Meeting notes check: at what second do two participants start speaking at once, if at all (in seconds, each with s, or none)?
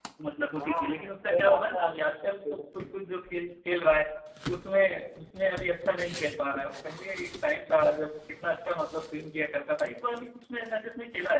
0.6 s